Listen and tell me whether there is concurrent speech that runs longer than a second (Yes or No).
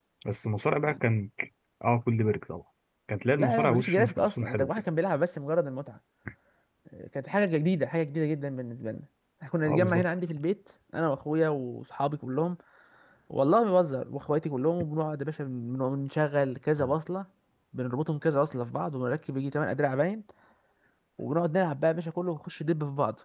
Yes